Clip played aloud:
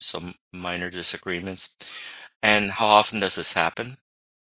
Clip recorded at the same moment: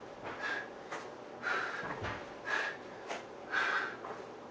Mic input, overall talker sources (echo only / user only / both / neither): neither